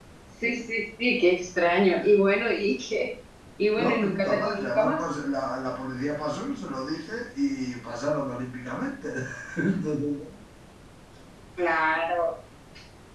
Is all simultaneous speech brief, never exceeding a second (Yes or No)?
No